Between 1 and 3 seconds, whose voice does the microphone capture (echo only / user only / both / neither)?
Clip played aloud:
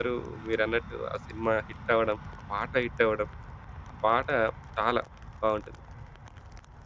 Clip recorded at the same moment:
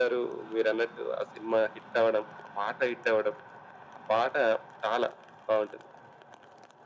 echo only